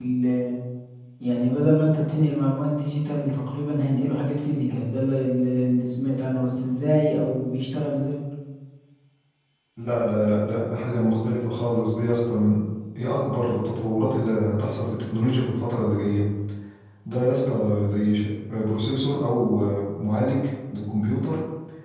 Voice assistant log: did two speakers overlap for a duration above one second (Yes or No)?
No